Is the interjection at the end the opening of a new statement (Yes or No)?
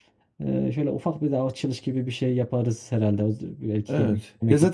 Yes